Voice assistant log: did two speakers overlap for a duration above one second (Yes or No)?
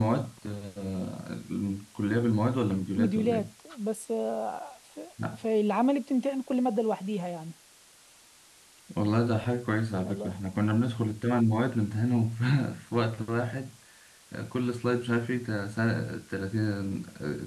No